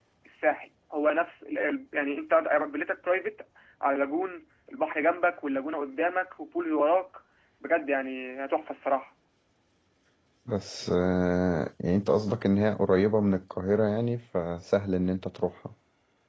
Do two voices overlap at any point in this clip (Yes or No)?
No